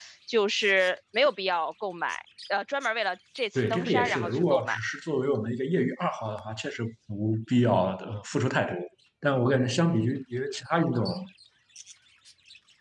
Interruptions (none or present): present